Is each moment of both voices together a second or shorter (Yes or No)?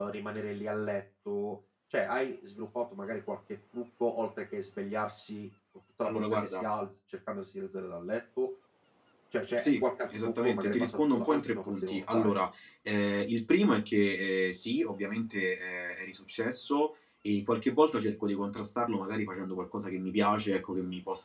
No